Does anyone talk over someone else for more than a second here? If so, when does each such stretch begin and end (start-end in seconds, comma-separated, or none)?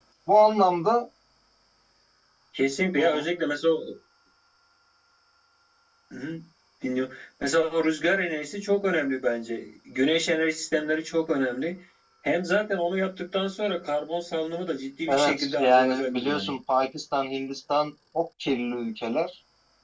15.1-16.5